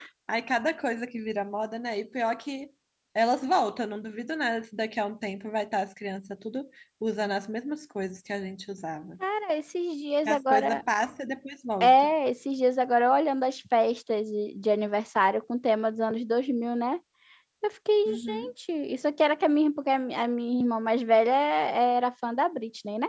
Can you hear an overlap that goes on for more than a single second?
No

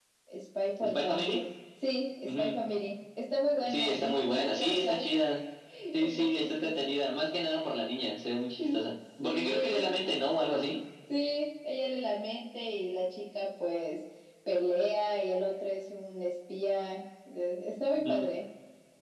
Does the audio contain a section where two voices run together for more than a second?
Yes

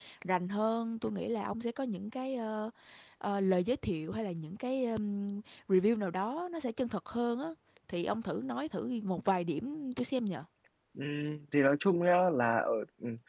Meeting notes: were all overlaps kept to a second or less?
Yes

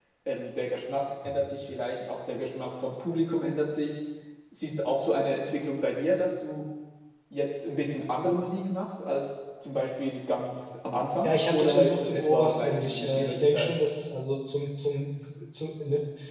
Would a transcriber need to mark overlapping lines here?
Yes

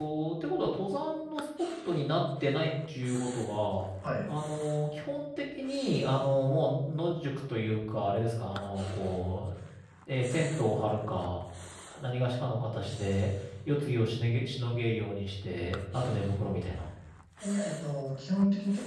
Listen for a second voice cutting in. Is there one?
No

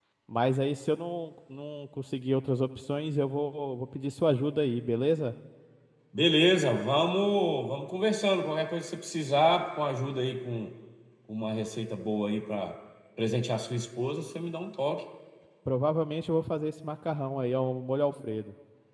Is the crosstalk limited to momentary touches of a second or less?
Yes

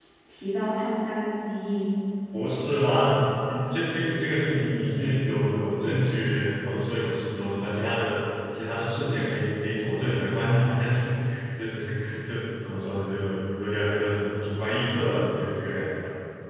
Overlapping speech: No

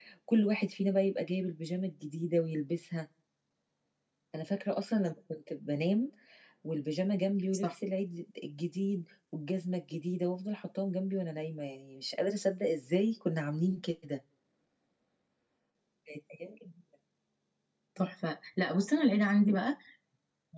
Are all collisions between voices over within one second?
Yes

